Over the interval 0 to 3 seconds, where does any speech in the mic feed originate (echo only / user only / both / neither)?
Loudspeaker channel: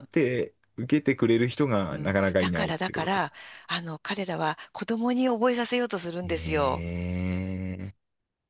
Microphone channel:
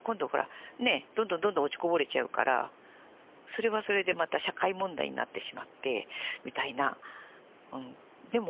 user only